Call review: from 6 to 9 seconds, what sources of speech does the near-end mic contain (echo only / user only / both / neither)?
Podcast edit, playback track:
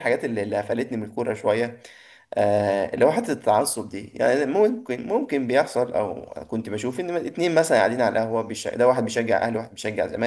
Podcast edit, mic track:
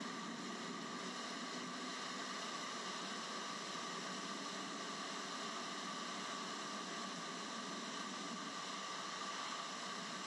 neither